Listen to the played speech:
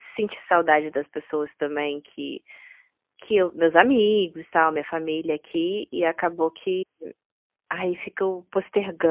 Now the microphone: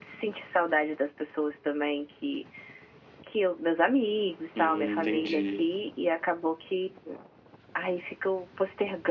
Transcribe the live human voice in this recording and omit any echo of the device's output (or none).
Hum, entendi.